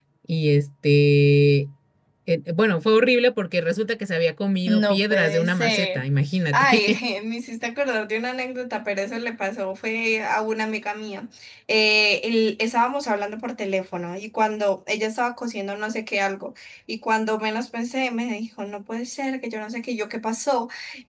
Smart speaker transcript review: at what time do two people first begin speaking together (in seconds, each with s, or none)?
4.7 s